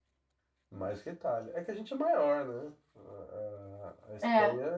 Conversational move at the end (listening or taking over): listening